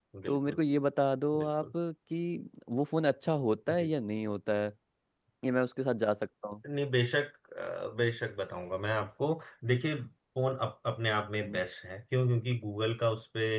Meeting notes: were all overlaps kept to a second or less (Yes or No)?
Yes